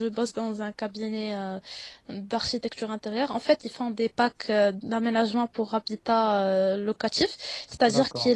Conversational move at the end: listening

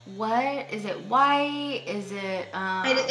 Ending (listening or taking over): taking over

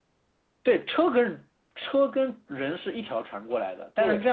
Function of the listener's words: listening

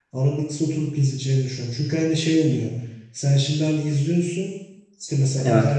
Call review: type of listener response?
listening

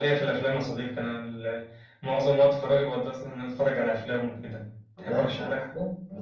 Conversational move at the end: taking over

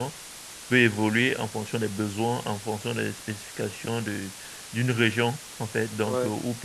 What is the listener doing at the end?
listening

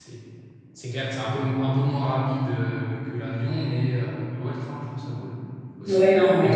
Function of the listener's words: taking over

